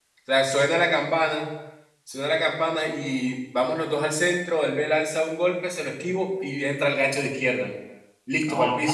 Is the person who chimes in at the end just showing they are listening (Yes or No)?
No